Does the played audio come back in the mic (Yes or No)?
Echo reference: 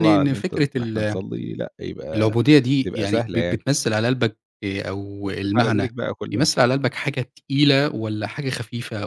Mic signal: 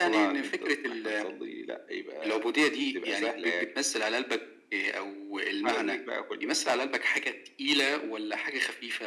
Yes